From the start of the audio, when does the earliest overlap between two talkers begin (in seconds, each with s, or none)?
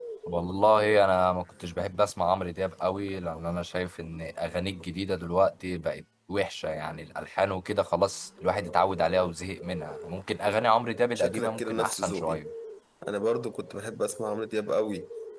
11.2 s